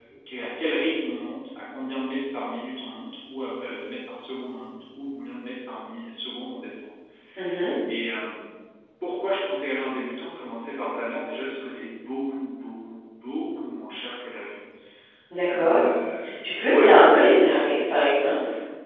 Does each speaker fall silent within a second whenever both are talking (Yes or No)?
Yes